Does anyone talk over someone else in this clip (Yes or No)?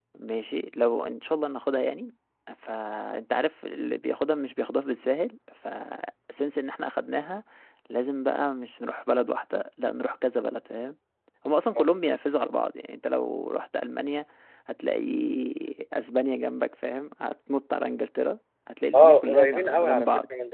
Yes